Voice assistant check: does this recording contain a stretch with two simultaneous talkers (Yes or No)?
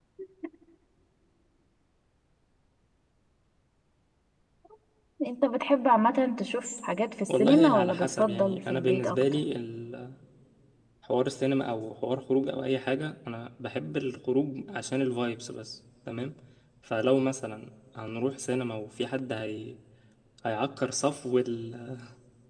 Yes